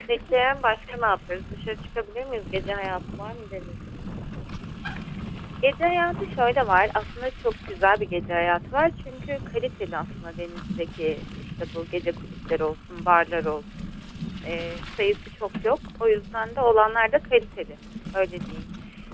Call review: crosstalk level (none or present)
none